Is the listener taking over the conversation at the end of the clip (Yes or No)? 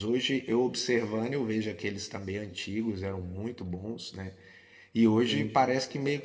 No